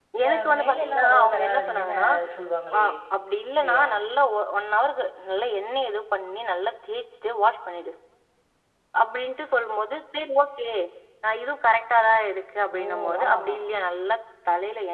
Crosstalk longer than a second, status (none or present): present